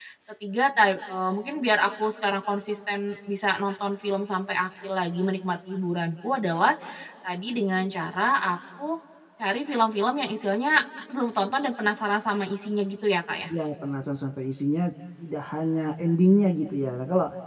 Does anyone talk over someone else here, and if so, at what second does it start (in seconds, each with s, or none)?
none